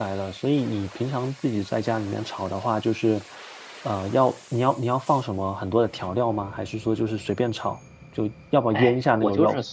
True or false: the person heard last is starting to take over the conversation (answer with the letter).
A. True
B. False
A